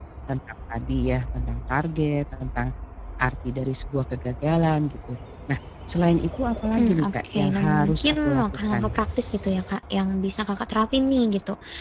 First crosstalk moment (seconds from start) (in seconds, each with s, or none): 6.8 s